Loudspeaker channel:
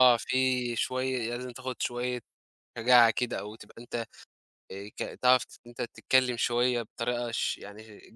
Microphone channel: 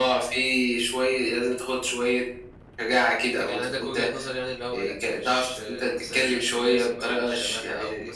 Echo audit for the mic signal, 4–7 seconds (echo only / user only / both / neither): both